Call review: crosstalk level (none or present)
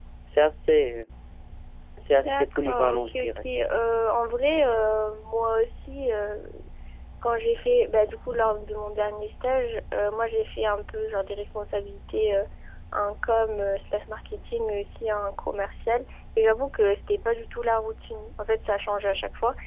present